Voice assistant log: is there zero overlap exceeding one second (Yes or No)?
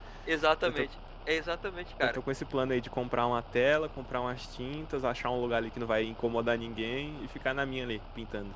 Yes